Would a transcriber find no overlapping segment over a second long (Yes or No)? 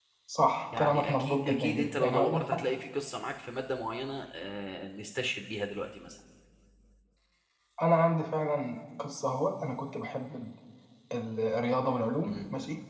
No